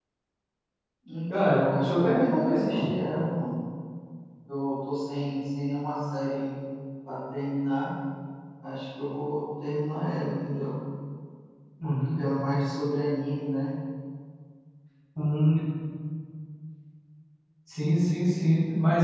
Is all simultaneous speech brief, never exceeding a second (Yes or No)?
No